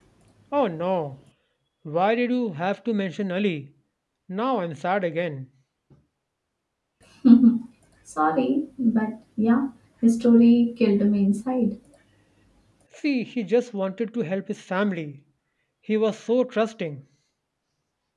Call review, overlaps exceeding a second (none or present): none